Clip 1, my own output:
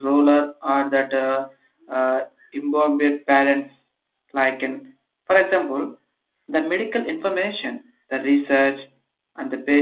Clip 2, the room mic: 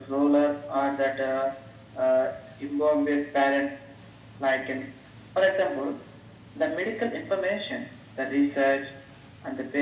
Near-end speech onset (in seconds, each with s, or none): none